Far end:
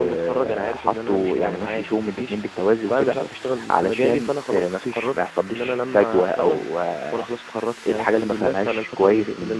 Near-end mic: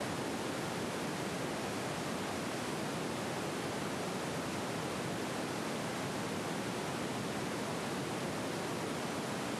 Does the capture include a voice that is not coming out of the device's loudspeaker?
No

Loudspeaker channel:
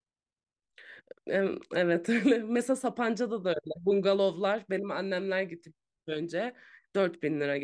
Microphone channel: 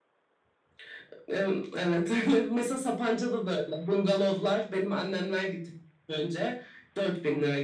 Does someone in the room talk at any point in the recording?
No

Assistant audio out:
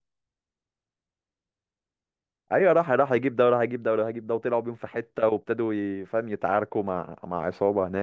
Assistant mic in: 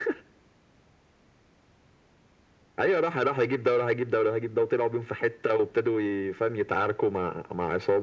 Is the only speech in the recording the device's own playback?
Yes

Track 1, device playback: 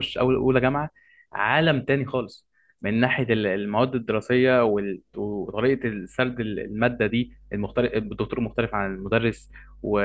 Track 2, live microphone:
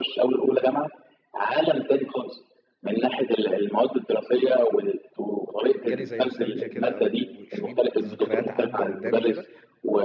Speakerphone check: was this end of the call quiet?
No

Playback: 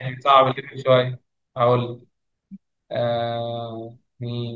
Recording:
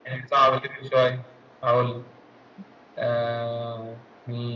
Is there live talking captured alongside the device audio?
No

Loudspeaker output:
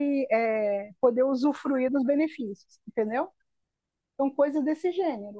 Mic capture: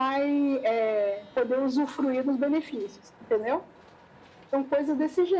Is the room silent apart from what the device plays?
Yes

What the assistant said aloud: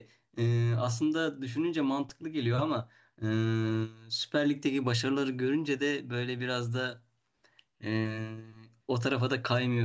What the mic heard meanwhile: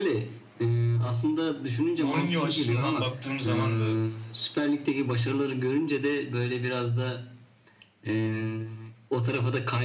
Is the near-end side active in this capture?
Yes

